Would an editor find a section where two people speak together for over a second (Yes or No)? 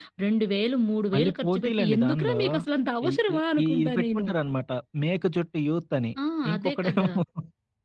Yes